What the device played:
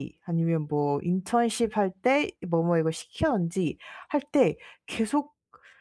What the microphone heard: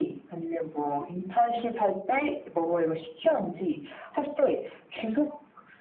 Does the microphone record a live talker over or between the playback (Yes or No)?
No